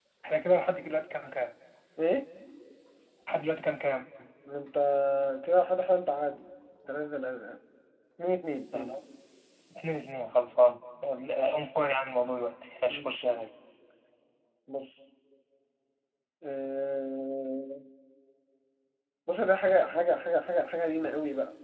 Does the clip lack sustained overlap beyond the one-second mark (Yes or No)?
Yes